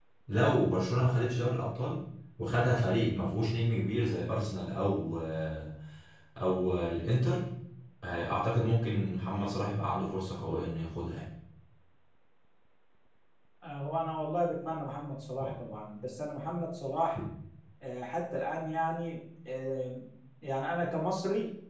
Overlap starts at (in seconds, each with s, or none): none